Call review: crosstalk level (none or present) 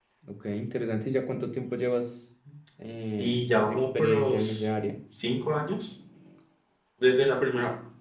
present